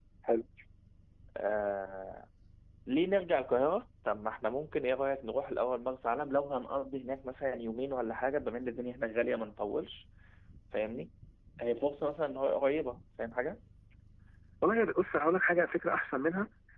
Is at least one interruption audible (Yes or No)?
No